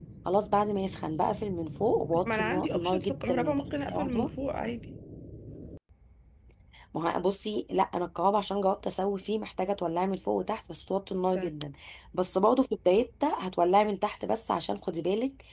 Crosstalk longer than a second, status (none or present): present